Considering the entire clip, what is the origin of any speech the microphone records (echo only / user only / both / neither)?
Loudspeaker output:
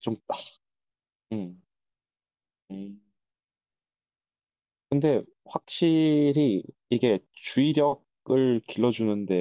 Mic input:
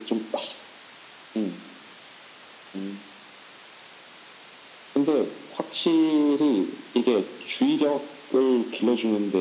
echo only